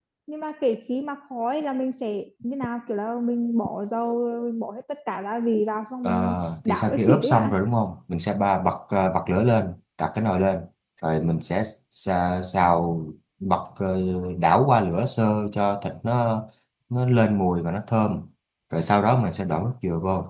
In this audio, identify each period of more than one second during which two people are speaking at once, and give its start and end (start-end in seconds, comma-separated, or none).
6.0-7.5